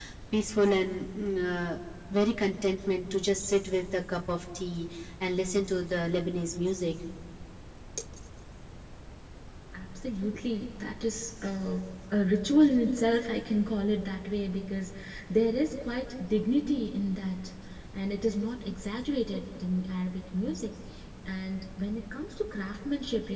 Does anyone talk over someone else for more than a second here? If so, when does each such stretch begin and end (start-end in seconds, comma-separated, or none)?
none